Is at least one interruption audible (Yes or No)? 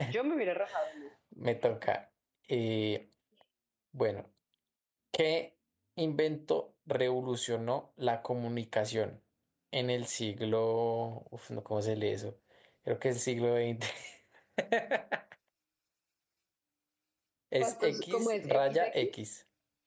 Yes